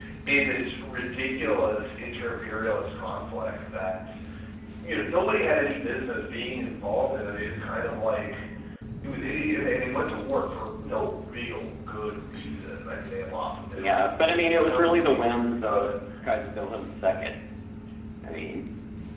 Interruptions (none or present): present